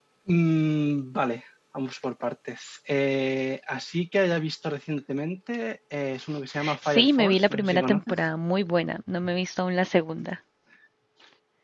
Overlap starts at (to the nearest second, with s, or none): 7 s